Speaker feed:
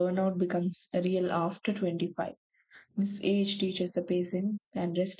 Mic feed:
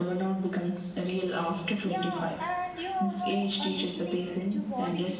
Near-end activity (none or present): present